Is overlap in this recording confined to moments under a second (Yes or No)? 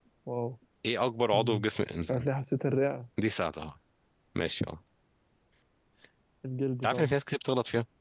Yes